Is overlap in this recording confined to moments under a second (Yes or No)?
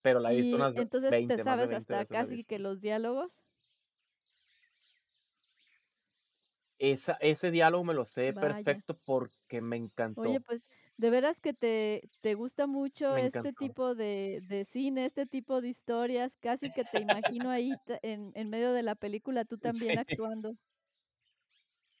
No